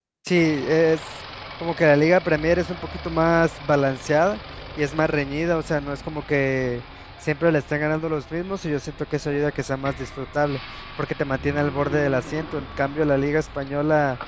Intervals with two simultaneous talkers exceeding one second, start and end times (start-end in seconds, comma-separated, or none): none